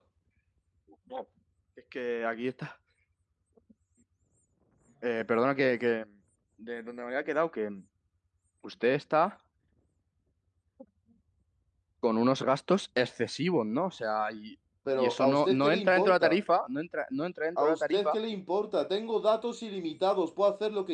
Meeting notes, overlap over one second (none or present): present